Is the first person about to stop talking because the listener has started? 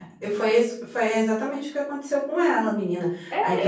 Yes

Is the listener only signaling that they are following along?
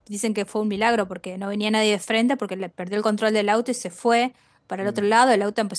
Yes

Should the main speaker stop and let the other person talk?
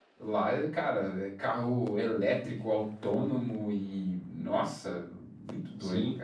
Yes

